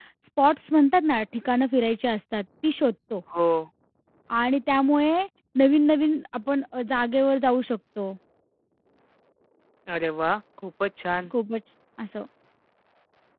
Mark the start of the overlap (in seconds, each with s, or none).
none